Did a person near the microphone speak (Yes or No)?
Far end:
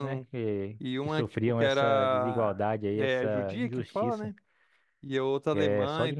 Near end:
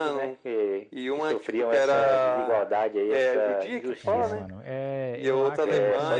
Yes